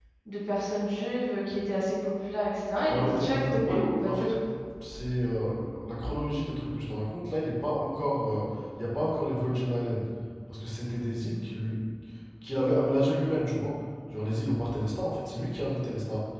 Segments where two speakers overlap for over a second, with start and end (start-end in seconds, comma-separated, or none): 2.9-4.4